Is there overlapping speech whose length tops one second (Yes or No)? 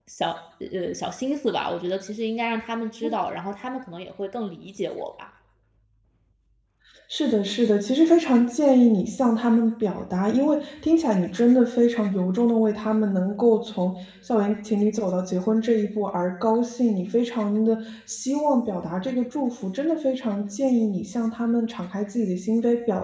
No